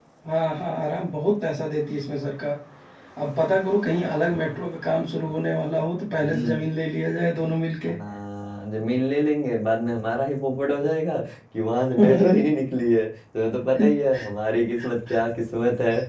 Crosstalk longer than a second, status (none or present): none